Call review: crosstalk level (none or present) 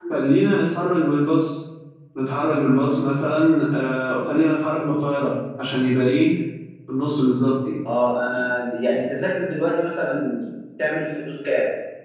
none